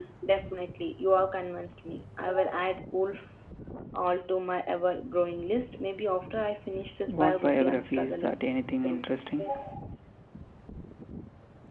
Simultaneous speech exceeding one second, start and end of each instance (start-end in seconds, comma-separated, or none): 7.1-8.4